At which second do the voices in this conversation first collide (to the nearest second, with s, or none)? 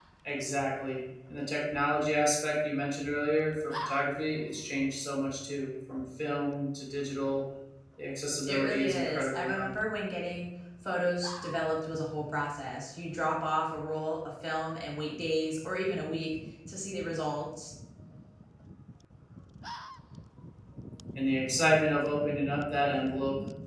8 s